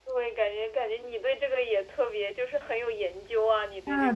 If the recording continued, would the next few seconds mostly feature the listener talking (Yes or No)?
Yes